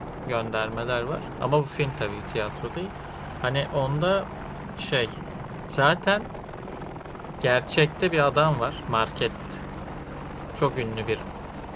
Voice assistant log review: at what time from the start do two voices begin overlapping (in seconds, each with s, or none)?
none